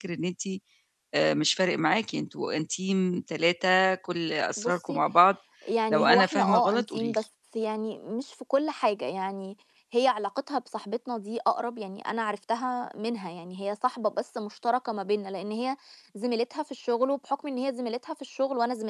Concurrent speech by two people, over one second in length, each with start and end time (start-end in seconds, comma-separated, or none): 5.9-7.2